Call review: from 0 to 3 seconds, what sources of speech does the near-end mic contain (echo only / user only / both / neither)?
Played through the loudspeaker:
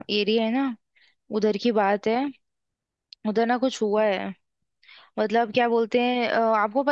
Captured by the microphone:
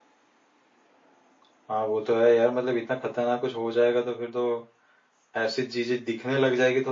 user only